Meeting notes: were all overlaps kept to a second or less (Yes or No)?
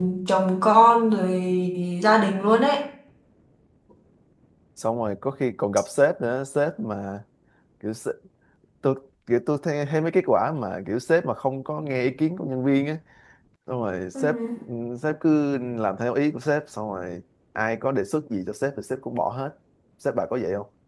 Yes